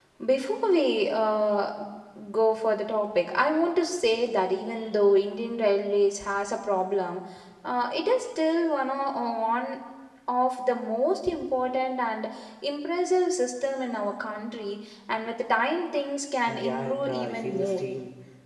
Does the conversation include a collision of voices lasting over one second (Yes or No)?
Yes